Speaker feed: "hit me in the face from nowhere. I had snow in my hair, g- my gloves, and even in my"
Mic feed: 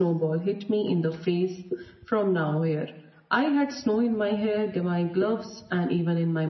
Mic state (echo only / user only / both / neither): echo only